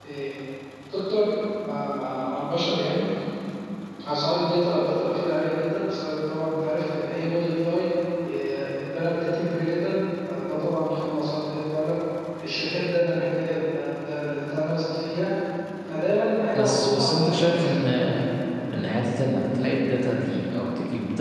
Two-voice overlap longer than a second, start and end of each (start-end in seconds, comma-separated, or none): 16.5-17.8